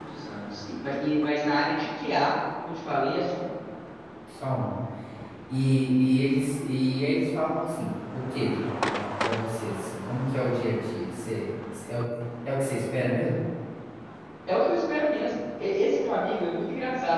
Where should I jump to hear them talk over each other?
none

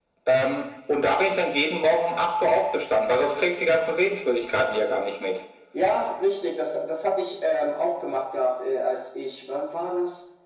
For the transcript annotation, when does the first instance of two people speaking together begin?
none

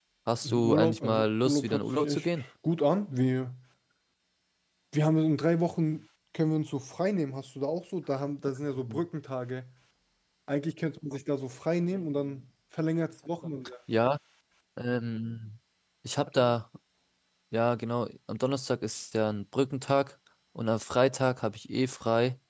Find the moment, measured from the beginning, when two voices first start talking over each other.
0.6 s

